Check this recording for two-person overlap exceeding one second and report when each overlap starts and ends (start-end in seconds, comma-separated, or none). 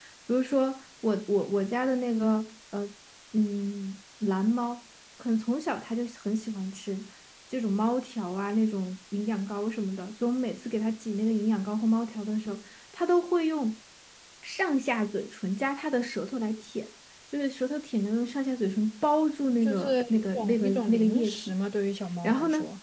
19.6-21.5